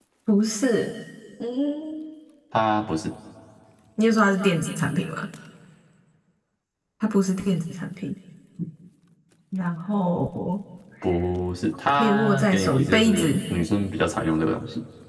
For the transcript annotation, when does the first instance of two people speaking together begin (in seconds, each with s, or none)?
11.9 s